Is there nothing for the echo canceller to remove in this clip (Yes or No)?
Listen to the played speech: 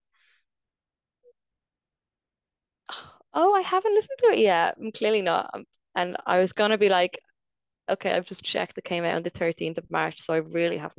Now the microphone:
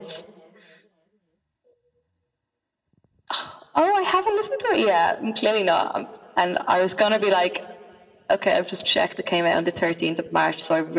No